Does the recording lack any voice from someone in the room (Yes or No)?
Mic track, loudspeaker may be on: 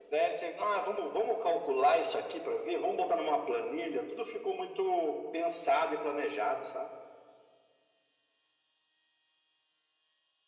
Yes